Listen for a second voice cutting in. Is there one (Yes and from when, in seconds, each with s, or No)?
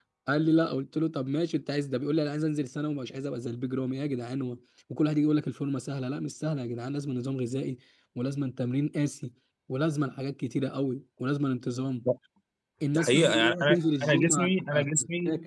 Yes, from 12.9 s